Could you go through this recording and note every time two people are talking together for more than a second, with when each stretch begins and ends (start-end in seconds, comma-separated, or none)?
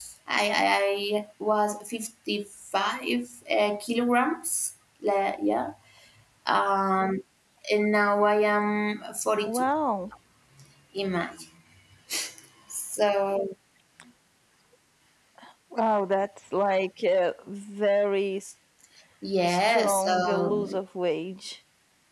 19.5-20.8